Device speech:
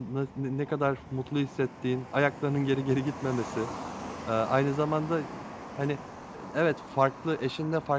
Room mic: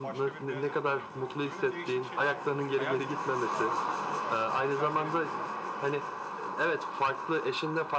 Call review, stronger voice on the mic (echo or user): echo